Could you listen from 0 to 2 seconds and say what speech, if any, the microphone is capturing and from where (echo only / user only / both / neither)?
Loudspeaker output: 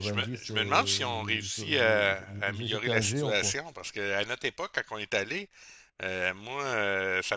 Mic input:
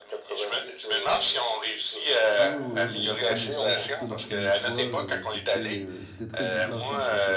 echo only